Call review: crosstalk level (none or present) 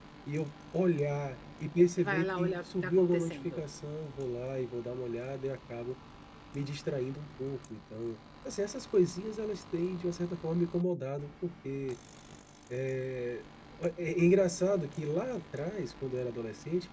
present